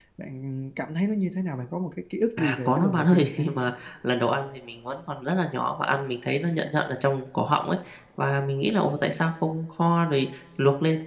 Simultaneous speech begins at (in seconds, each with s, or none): 2.4 s